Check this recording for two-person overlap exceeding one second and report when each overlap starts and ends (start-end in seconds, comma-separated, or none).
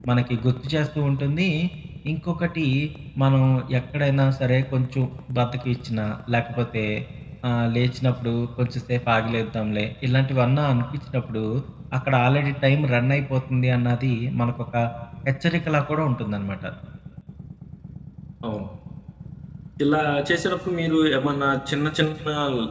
none